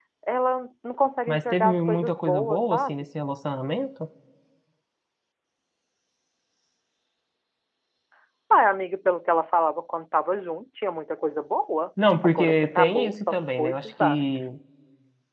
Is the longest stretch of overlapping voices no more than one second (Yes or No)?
No